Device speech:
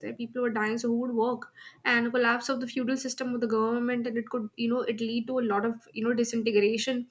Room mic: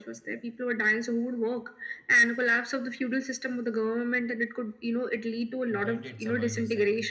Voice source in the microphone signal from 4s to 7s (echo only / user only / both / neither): both